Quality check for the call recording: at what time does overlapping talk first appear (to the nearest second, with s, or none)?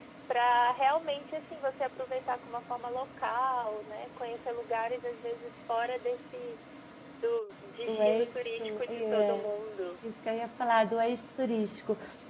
8 s